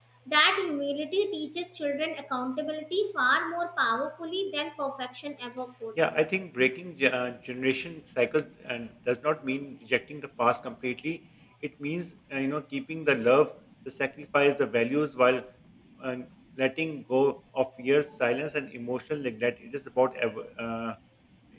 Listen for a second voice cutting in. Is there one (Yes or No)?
No